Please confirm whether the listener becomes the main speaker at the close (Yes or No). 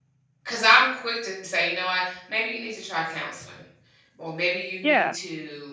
No